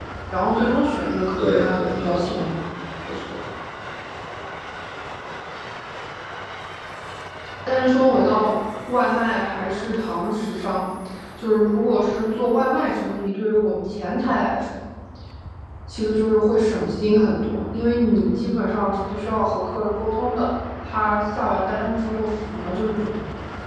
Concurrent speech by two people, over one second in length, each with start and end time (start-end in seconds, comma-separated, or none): 1.4-2.6